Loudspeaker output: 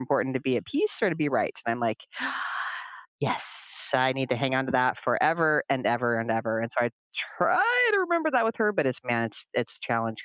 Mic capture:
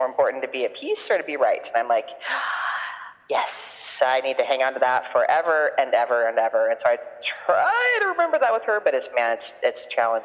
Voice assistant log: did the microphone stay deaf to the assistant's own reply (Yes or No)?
No